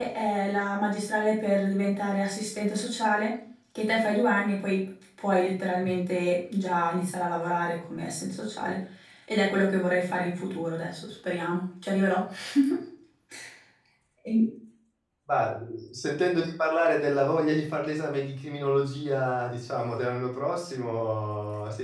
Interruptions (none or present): none